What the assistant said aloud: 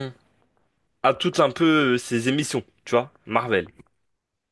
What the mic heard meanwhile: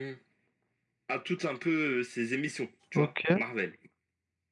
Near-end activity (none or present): present